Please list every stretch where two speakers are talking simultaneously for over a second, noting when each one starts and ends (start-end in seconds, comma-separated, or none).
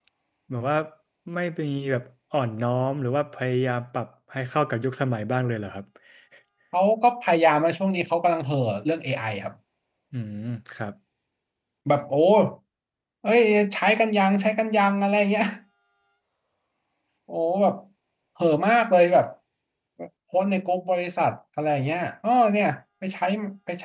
none